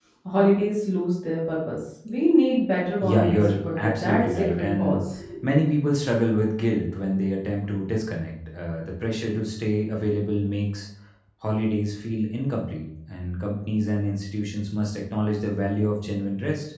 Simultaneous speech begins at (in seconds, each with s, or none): 3.0 s